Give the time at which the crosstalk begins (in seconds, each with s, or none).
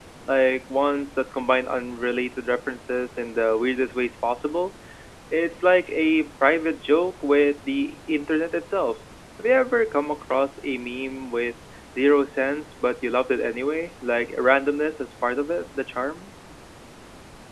none